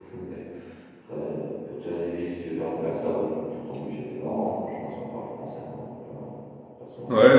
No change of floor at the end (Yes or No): No